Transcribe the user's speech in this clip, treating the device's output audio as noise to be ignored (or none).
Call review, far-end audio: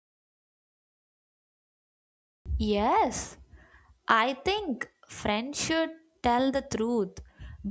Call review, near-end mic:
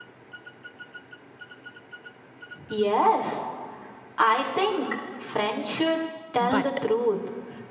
but